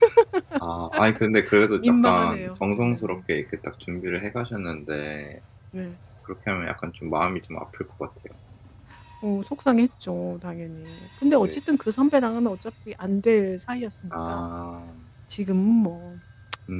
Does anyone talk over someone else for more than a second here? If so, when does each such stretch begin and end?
1.8-3.2

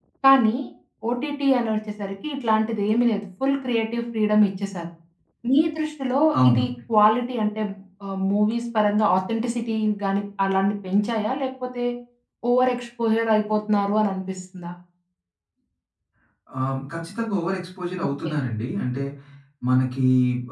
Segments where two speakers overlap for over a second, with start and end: none

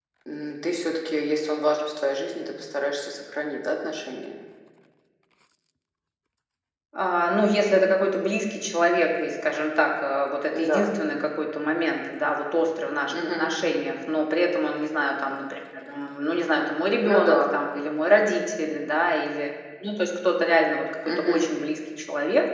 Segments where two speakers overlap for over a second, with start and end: none

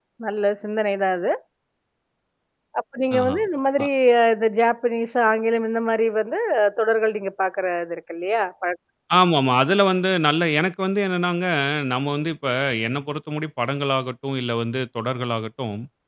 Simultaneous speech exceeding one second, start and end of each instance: none

